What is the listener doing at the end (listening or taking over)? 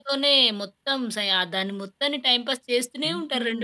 taking over